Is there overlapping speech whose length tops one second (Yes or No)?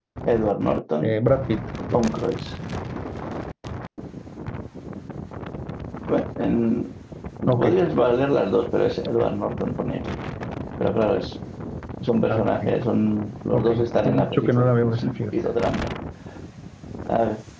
Yes